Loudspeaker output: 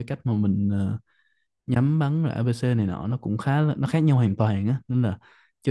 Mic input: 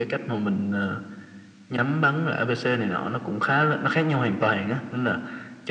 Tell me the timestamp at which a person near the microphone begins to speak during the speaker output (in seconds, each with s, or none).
none